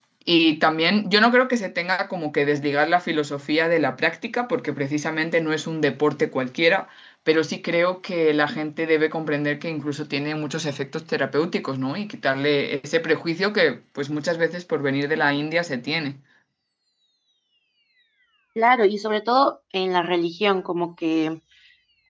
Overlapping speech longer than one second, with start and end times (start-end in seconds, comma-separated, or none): none